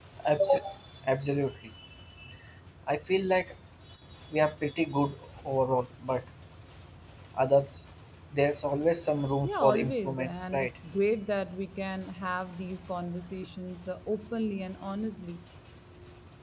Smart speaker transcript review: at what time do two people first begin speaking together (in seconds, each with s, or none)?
9.4 s